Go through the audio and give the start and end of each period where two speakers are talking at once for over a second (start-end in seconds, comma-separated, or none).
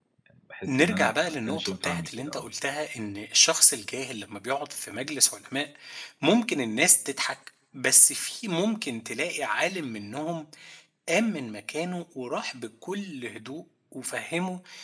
0.7-2.5